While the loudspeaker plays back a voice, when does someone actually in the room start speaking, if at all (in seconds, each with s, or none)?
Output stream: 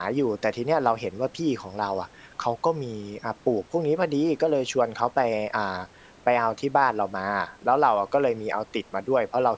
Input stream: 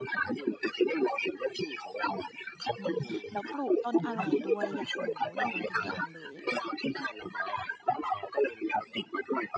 2.8 s